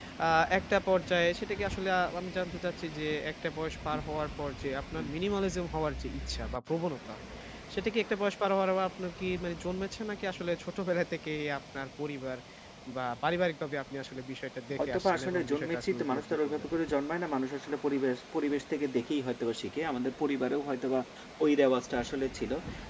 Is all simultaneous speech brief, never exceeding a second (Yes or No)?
No